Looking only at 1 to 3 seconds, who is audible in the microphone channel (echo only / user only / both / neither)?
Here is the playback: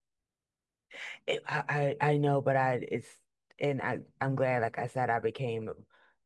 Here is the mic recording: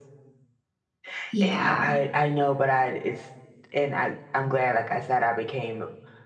both